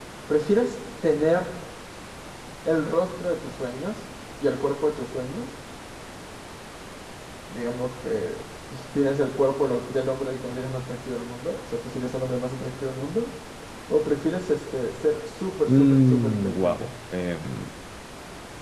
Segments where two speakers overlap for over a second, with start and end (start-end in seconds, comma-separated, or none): 15.7-16.9